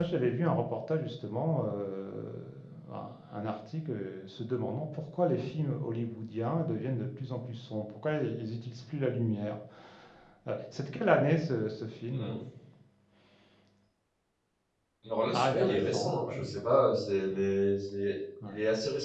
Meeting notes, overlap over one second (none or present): present